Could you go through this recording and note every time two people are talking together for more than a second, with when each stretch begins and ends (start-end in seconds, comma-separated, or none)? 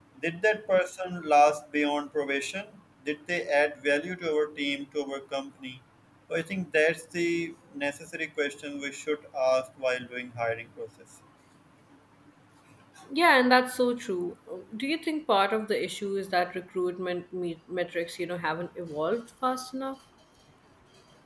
none